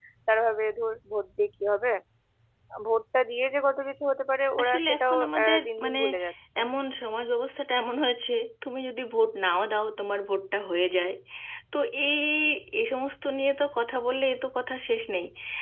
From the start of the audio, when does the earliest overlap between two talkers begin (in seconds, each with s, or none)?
4.6 s